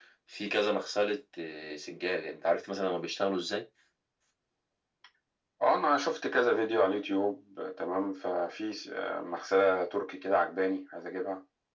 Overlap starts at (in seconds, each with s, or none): none